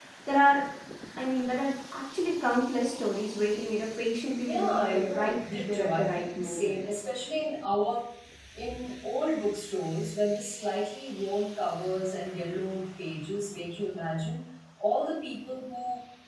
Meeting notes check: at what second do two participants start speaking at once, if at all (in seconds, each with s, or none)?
4.4 s